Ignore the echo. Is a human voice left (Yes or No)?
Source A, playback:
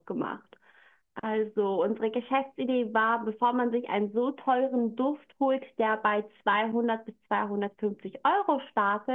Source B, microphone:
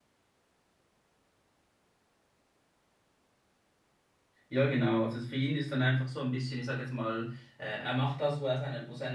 Yes